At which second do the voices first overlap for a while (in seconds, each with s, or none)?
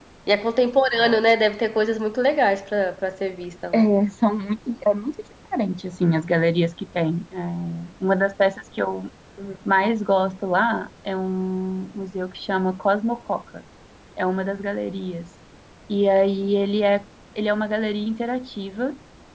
none